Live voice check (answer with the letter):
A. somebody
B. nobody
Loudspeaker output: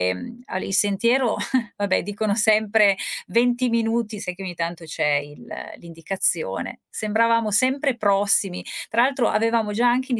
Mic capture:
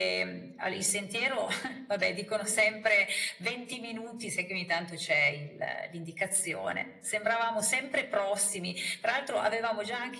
B